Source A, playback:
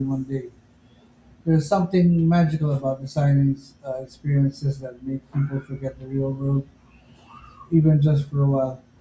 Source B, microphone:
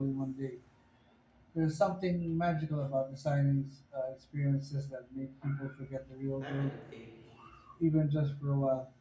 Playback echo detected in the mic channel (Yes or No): Yes